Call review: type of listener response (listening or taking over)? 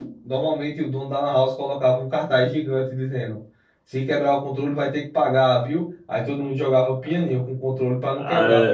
listening